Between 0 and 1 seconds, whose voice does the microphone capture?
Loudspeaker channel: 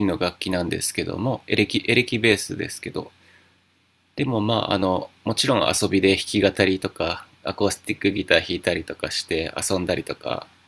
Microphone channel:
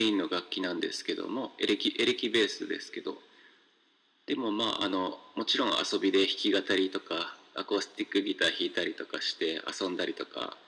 echo only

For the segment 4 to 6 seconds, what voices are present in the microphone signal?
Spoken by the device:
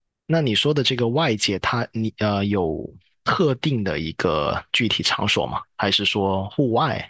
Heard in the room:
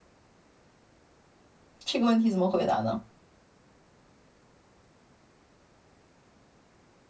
neither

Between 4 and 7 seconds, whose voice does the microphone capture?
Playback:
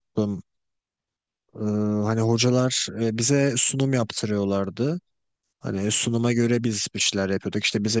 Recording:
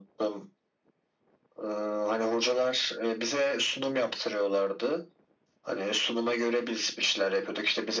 echo only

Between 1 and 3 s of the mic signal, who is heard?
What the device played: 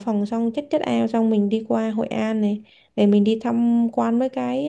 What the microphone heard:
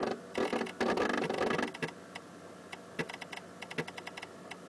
neither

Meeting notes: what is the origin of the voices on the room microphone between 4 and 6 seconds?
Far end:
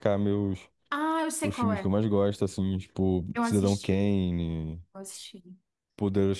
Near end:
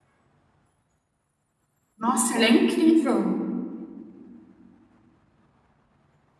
neither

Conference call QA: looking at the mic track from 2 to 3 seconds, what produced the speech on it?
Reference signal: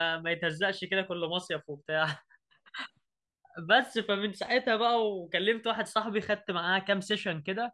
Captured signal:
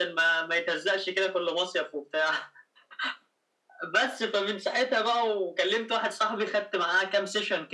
echo only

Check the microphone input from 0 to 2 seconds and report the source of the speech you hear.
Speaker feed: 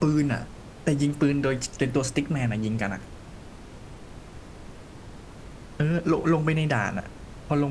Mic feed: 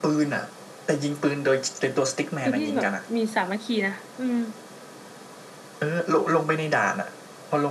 echo only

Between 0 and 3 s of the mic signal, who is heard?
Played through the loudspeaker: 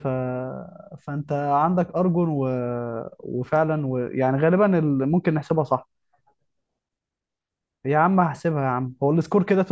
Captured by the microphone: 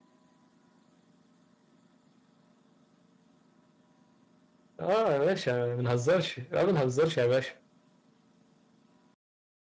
neither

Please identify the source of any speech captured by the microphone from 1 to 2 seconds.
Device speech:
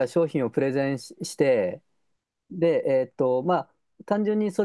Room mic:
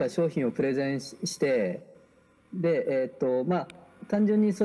echo only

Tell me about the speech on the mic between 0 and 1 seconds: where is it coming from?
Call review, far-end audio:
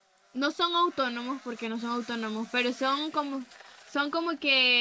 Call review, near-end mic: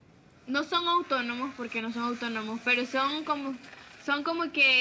echo only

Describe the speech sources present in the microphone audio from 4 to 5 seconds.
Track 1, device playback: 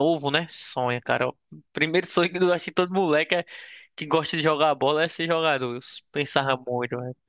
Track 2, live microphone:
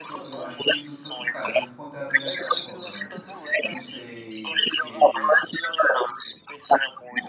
both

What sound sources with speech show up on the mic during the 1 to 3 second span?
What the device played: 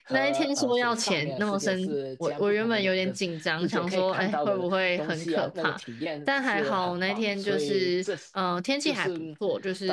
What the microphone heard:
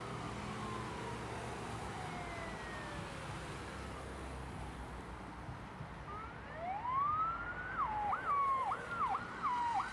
neither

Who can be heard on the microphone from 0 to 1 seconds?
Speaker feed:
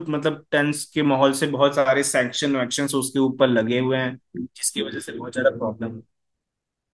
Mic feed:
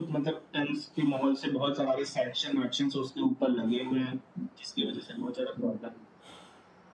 echo only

